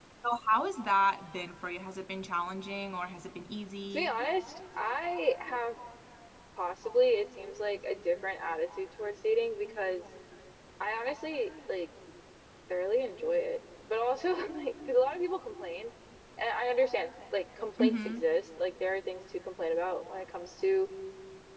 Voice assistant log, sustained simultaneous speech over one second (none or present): none